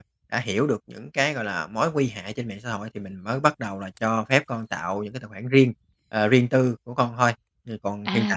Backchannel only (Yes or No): No